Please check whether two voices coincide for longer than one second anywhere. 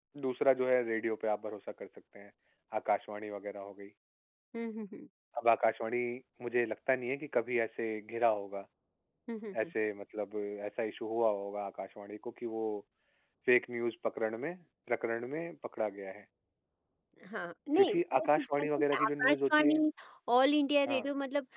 Yes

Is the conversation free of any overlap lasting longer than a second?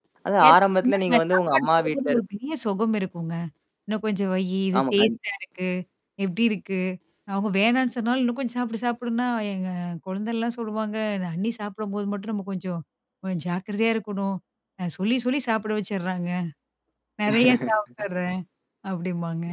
No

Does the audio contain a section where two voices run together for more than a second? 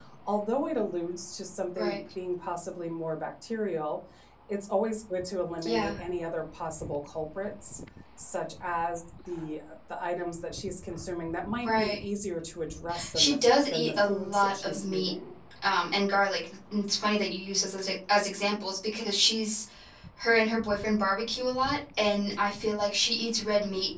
Yes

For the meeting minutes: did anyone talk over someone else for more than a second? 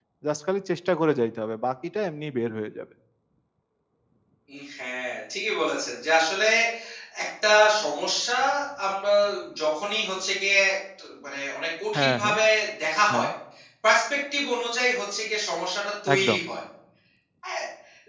No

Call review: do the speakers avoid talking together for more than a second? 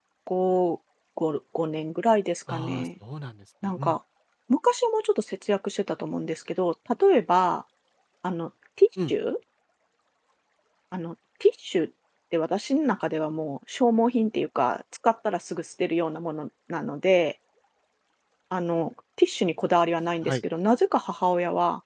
Yes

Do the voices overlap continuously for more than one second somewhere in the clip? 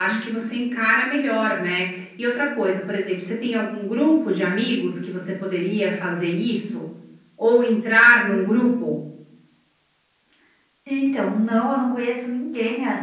No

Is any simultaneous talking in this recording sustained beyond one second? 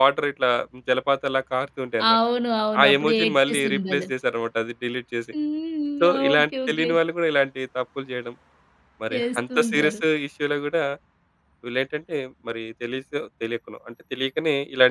Yes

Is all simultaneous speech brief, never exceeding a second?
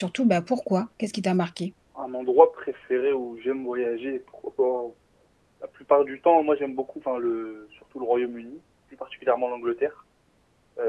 Yes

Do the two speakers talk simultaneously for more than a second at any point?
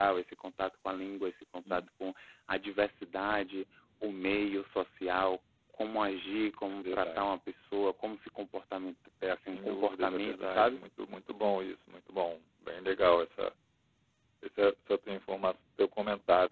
Yes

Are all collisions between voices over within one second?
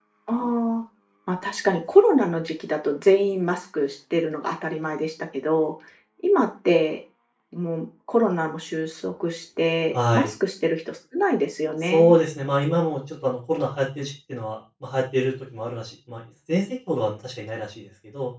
Yes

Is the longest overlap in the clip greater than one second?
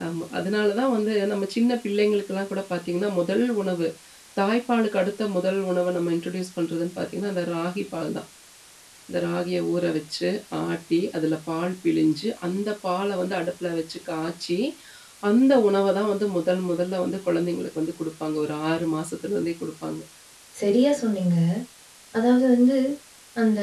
No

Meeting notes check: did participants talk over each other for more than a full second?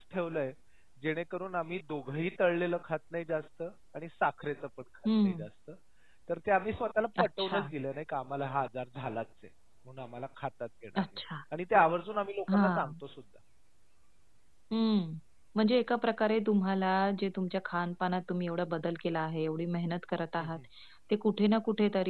No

